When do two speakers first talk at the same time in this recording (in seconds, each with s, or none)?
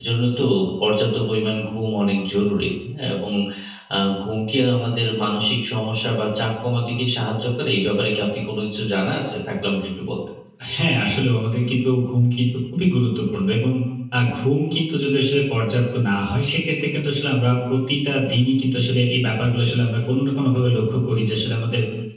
none